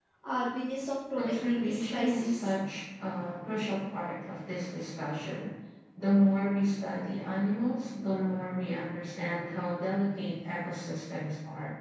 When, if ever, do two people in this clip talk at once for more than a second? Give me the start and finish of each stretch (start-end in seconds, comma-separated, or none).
1.1-2.5